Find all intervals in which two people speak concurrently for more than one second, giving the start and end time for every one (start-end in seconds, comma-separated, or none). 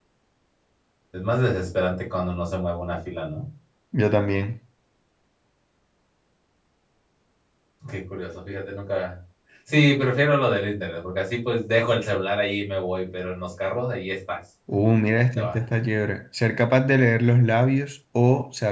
none